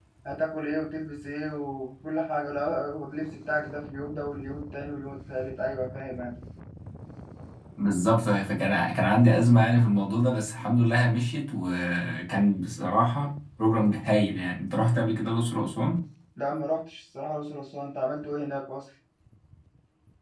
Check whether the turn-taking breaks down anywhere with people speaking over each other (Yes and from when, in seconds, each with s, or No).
No